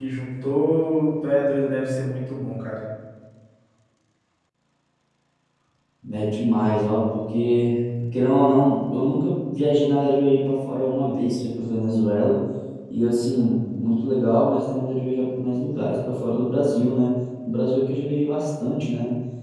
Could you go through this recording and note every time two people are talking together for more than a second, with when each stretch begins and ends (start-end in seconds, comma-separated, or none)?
none